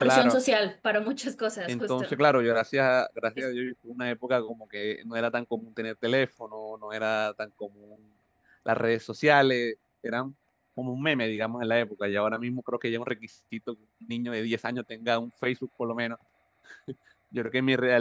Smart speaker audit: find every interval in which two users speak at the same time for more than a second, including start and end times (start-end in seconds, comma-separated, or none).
none